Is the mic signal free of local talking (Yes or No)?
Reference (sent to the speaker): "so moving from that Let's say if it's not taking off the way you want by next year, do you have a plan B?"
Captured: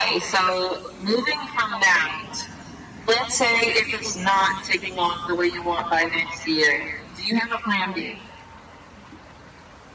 Yes